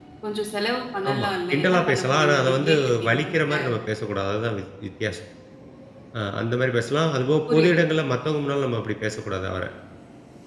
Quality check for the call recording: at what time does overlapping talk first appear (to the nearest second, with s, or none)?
1 s